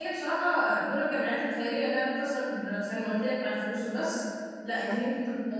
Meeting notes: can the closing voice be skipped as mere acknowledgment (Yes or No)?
Yes